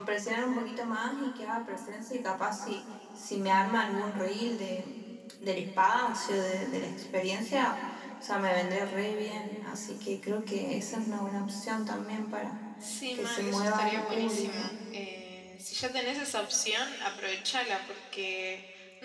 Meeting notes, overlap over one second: present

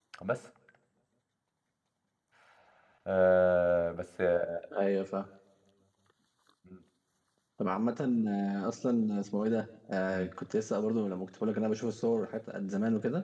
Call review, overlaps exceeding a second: none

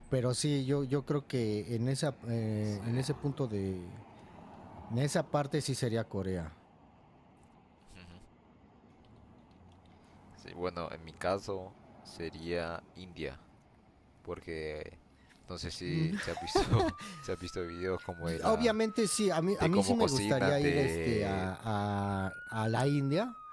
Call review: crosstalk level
present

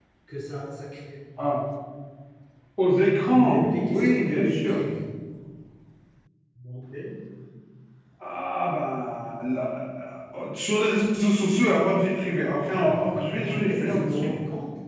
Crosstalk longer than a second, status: present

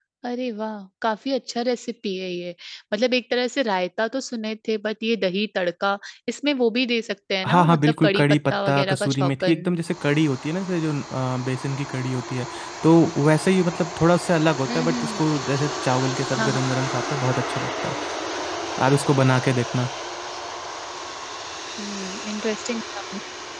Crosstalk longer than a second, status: present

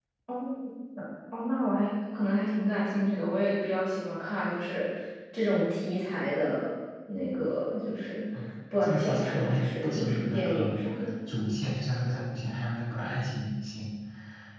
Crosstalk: present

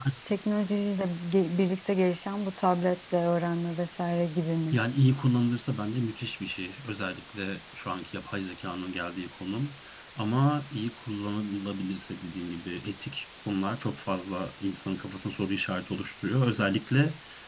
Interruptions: none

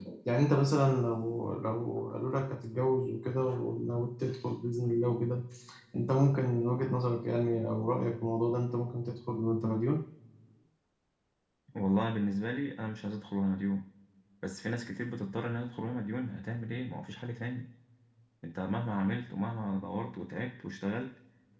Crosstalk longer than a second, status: none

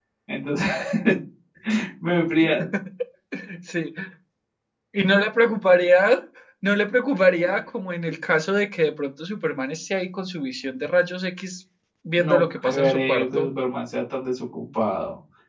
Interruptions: present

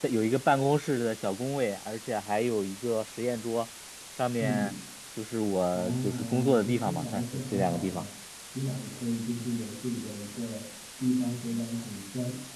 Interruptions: present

